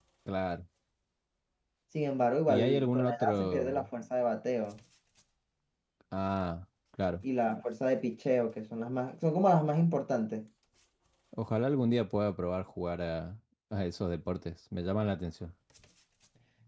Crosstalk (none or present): present